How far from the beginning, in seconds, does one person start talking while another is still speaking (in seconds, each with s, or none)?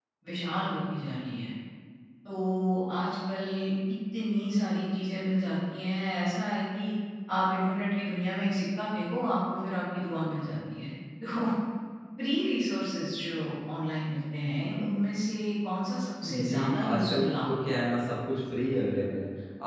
16.2 s